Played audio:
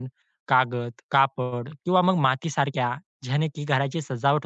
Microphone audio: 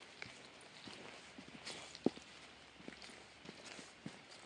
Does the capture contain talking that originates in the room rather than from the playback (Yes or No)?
No